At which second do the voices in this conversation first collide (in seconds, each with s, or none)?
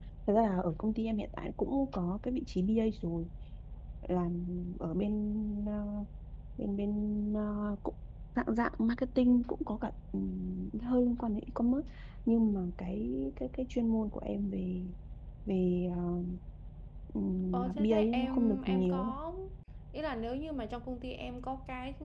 17.5 s